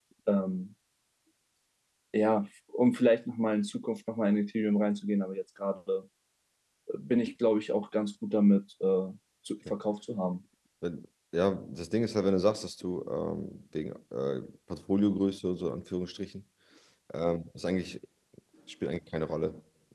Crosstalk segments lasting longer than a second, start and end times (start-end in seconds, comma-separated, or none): none